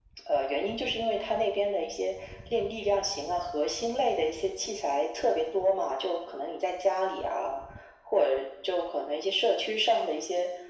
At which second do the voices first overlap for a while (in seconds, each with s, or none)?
none